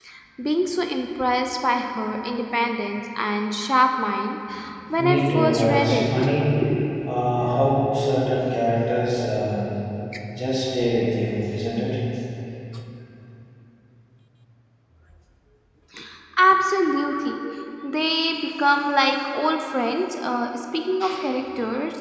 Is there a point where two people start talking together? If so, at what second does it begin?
5 s

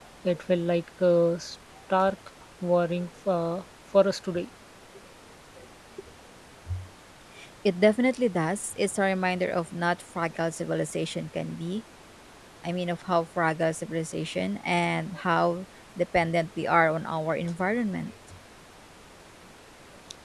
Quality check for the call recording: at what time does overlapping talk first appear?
none

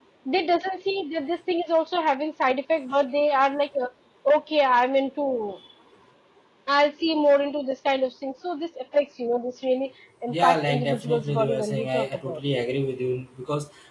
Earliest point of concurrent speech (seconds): 10 s

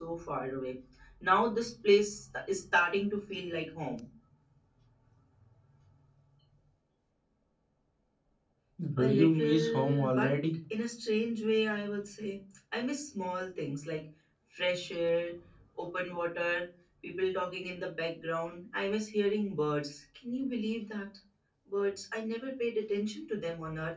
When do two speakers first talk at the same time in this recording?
9 s

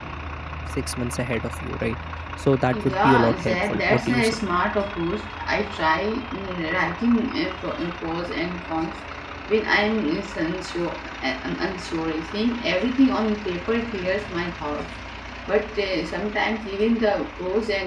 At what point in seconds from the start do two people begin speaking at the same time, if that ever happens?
3 s

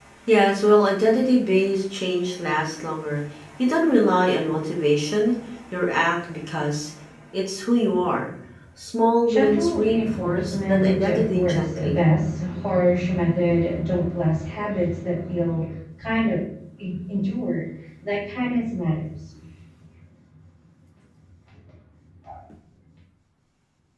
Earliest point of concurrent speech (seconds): 9 s

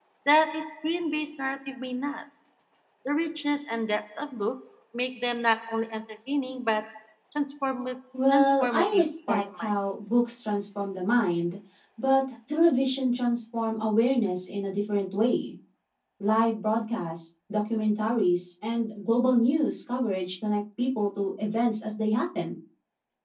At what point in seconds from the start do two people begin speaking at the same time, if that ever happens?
8 s

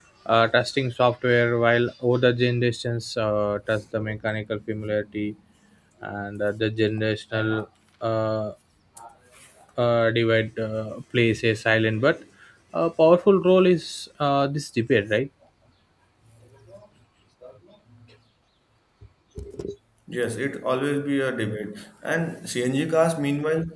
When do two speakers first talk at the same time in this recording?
none

